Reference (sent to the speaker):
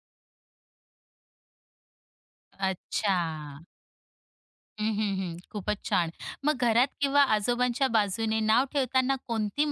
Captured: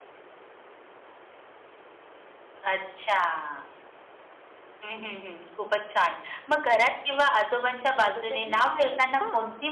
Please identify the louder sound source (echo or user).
echo